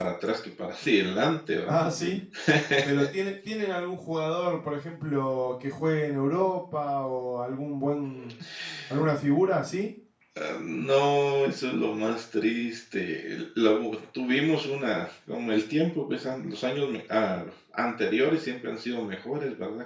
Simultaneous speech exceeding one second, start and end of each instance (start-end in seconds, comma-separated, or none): none